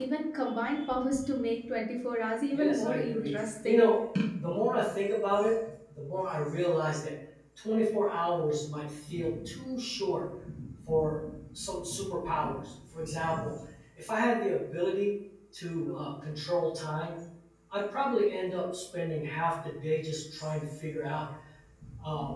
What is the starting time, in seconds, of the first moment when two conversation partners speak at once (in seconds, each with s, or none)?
2.5 s